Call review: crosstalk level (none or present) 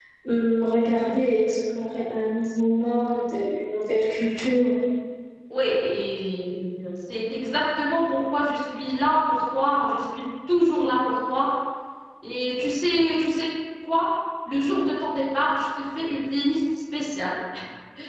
none